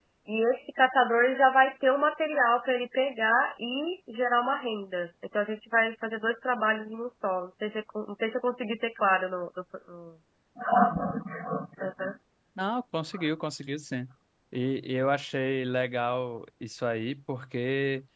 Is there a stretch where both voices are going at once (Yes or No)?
No